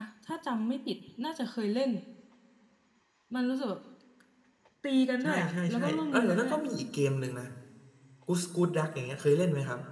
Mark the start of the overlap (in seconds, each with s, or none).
5.2 s